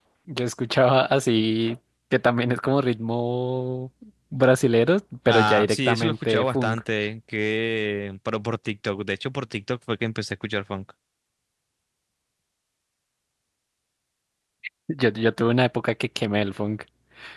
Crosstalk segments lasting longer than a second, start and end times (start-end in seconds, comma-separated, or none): 5.3-6.8